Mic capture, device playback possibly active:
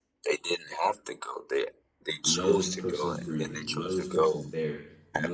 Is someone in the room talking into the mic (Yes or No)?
Yes